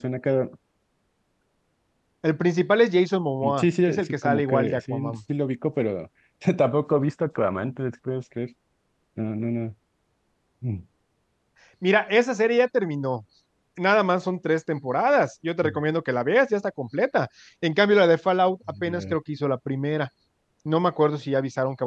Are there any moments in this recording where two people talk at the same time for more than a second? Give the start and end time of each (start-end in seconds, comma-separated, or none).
3.6-5.2